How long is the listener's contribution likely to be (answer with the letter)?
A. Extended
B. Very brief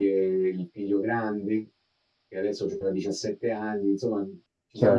B